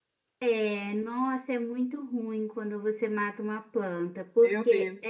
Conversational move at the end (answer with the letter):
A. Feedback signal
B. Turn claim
A